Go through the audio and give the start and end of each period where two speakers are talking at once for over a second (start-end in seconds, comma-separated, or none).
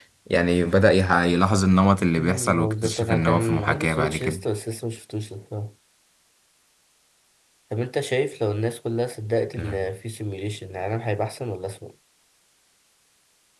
2.2-4.4